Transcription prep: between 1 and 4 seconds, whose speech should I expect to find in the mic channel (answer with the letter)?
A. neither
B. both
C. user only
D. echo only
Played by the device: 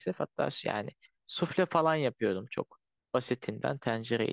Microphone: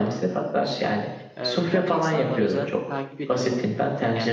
B